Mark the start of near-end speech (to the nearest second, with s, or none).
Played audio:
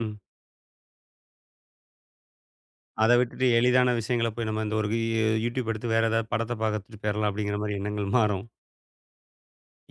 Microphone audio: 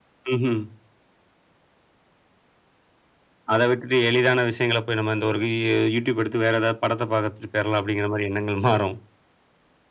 none